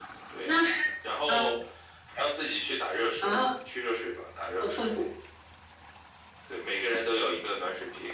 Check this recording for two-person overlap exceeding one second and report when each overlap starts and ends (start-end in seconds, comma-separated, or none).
none